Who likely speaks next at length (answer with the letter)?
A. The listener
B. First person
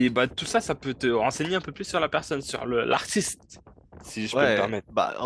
A